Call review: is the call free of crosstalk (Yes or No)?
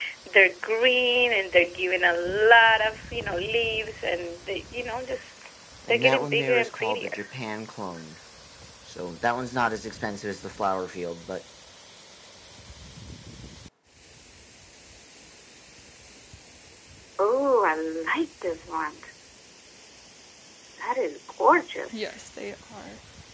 No